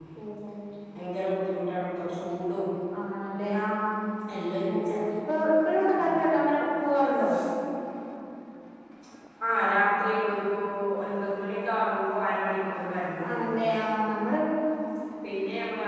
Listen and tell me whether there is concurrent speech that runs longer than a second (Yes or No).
No